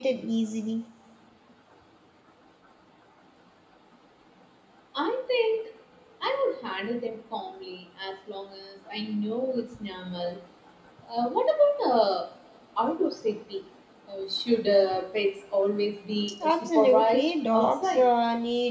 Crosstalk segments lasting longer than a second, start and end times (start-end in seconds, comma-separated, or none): 16.4-18.1